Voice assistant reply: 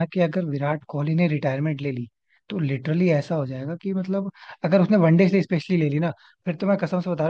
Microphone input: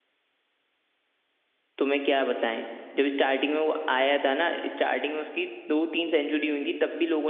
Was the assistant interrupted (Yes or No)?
Yes